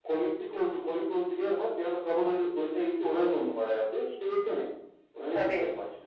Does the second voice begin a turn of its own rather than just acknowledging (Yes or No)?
Yes